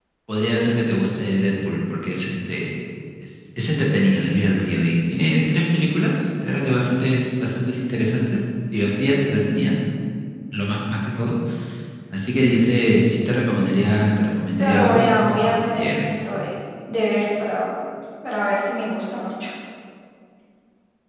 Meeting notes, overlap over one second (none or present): present